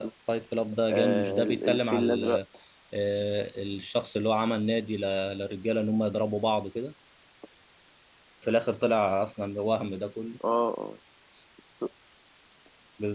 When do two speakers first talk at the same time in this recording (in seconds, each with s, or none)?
0.9 s